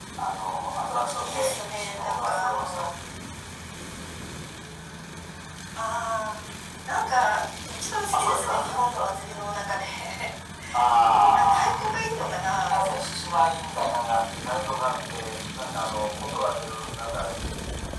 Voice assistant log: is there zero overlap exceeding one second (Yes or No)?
No